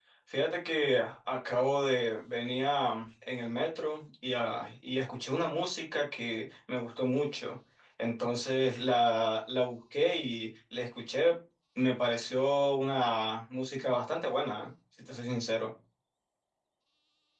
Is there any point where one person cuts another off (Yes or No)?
No